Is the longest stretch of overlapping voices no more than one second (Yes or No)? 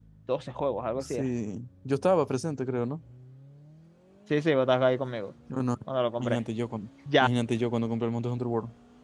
Yes